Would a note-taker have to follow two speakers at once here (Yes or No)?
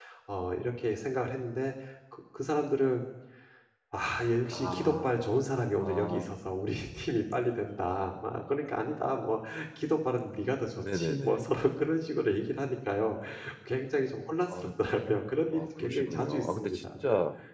Yes